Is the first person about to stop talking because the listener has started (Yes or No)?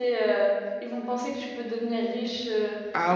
Yes